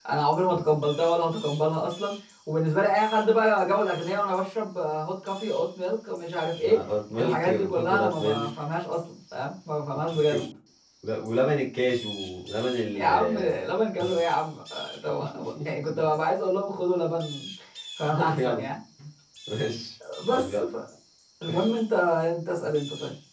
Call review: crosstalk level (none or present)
present